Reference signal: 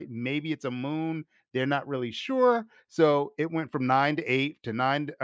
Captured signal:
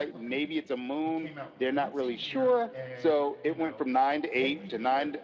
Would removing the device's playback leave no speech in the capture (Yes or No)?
No